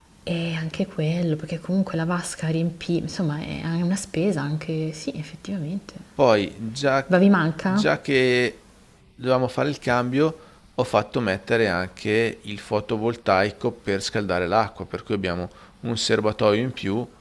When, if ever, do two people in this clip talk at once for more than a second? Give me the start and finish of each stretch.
none

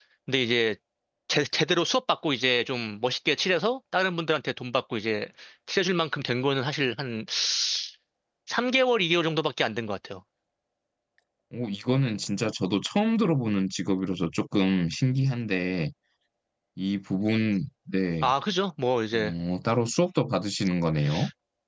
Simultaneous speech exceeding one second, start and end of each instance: none

